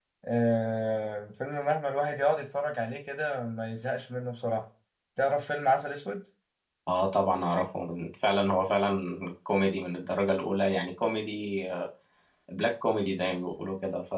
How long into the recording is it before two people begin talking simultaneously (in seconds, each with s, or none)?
none